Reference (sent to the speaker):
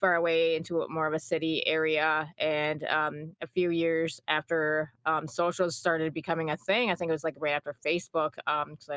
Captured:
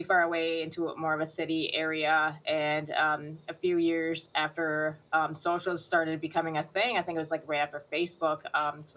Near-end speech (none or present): none